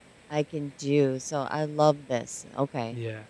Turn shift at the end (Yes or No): Yes